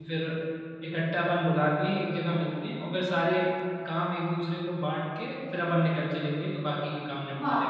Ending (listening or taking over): taking over